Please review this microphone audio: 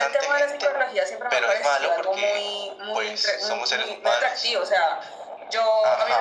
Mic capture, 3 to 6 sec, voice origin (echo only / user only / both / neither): echo only